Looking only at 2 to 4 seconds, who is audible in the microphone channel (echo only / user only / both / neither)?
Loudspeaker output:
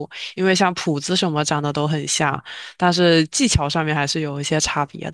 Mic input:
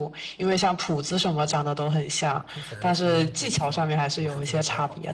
both